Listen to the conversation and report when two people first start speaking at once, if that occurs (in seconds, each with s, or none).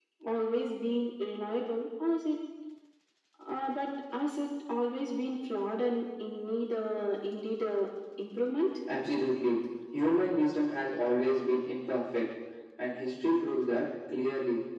none